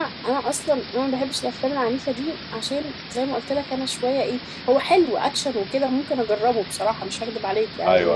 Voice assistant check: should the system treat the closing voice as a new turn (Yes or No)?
No